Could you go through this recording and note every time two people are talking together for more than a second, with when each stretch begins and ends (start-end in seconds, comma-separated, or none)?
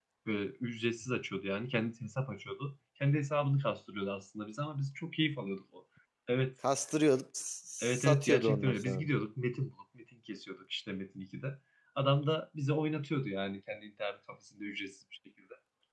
7.8-9.0